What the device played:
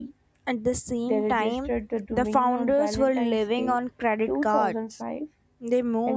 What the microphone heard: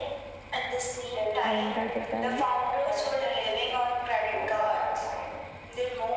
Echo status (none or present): present